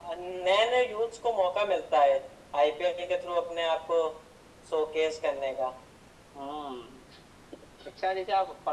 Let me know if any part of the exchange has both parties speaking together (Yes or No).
No